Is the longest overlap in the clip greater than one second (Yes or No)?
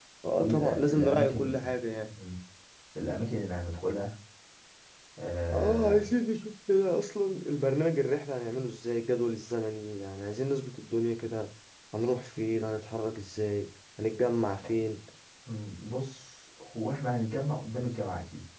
Yes